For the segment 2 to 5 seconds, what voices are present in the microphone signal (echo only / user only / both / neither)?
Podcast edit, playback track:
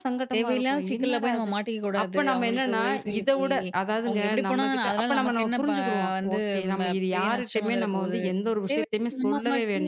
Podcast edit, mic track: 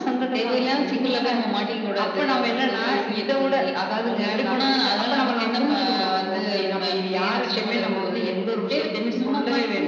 echo only